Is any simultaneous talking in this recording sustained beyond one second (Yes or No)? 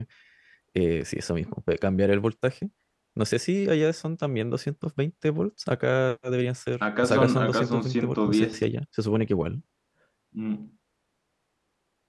Yes